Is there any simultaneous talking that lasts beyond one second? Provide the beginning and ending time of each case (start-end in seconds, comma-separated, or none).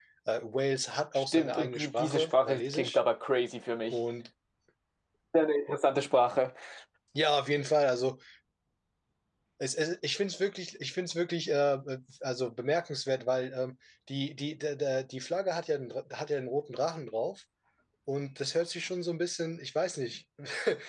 1.2-3.0